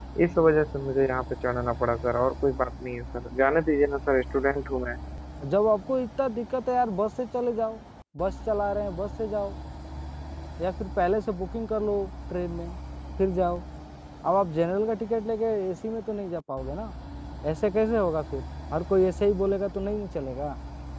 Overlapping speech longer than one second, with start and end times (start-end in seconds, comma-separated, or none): none